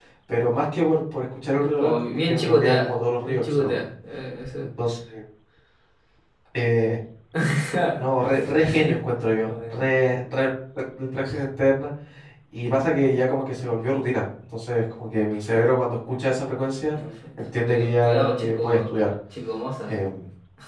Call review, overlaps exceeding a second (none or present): present